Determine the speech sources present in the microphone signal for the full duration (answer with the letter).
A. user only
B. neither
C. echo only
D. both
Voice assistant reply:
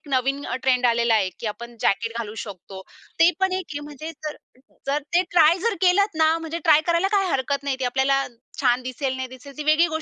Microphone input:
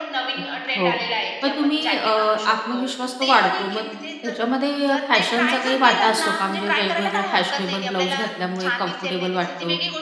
D